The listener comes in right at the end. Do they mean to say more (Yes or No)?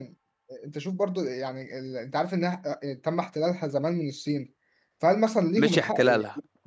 Yes